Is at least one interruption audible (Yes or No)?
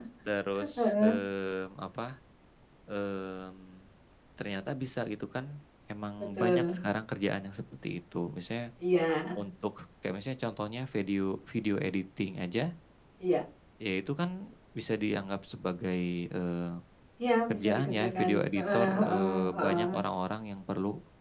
Yes